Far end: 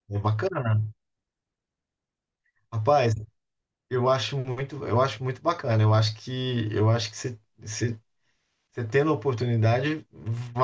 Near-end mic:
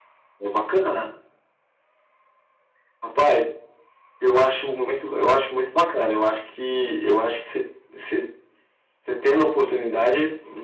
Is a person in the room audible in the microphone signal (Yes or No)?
No